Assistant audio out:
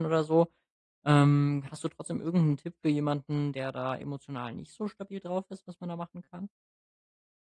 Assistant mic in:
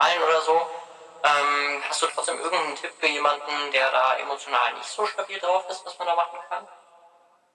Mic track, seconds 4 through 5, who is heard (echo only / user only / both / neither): echo only